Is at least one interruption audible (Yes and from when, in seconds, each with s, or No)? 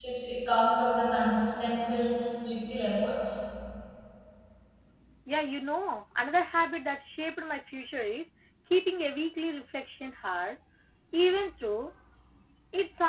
No